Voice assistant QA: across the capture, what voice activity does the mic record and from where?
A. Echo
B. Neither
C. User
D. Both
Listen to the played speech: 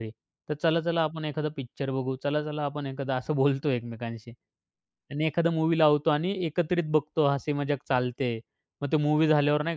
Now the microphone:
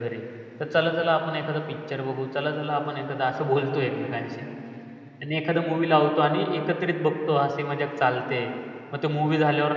A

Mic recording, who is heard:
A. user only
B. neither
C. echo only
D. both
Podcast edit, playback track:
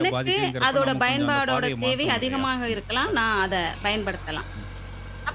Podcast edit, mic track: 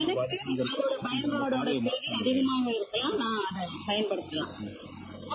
C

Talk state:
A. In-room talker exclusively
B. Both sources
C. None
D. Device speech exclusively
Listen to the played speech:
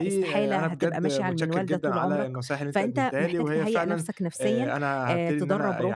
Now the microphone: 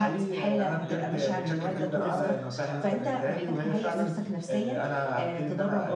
B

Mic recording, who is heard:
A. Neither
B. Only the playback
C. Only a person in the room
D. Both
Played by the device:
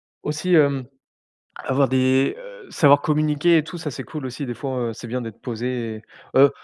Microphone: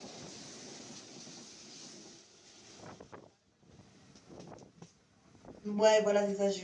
C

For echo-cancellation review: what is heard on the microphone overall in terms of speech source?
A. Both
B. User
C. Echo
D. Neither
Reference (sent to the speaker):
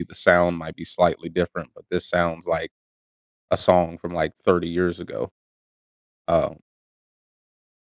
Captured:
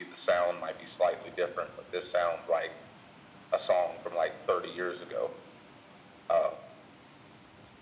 C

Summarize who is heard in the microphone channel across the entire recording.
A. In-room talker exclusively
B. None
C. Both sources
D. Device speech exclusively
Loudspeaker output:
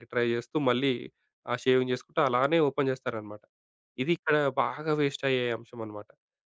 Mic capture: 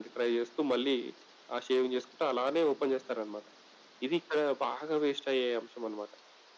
D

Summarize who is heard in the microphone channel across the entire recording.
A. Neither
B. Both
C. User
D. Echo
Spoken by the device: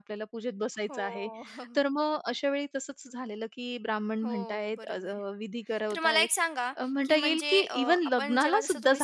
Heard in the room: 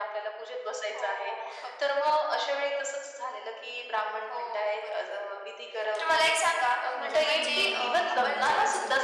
B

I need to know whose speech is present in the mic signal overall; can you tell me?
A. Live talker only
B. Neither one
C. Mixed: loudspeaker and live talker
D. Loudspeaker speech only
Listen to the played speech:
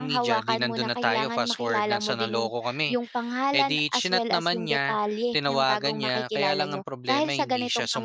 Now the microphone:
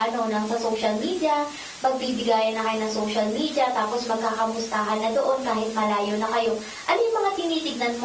A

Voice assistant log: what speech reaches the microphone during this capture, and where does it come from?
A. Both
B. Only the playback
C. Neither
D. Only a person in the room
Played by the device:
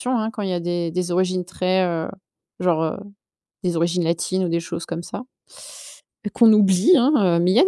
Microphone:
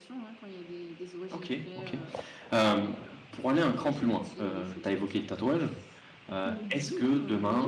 A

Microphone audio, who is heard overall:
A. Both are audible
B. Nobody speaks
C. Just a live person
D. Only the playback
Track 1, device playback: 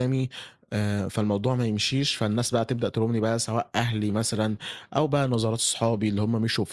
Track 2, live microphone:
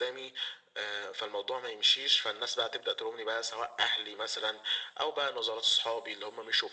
D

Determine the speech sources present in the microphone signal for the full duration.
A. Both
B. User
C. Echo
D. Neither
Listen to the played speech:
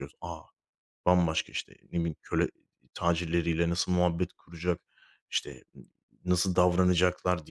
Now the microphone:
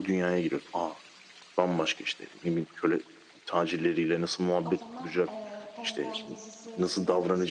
A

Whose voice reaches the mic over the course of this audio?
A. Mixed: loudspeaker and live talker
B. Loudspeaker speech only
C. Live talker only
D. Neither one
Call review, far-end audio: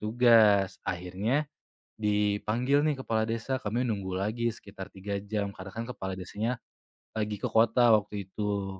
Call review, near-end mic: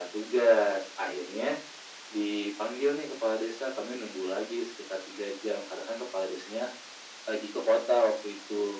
B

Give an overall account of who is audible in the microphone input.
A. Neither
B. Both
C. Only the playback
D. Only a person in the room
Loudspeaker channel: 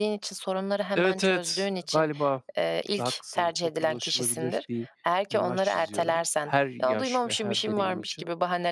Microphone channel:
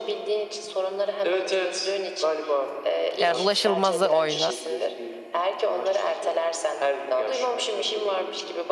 B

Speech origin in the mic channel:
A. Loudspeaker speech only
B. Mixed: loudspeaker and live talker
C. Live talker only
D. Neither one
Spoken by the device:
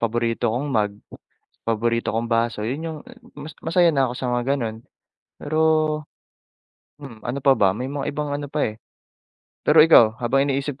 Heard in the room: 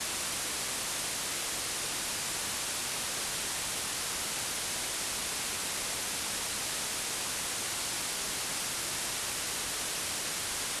D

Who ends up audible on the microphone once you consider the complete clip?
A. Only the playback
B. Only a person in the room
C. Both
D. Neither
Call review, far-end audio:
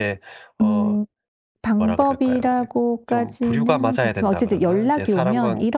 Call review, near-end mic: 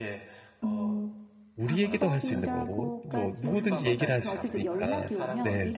C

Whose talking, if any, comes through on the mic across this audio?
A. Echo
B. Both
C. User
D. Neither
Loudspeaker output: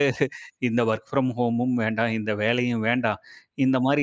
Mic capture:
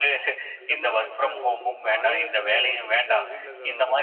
B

